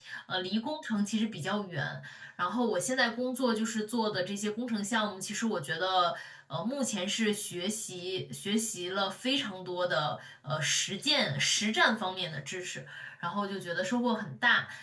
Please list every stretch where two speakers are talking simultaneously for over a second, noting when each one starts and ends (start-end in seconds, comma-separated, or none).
none